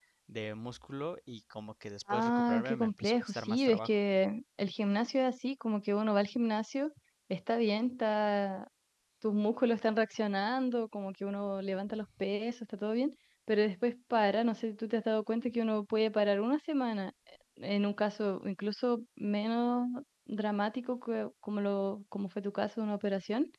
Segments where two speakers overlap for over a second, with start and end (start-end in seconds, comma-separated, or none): 2.1-3.9